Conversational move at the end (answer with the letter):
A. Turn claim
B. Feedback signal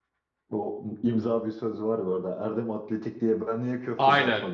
A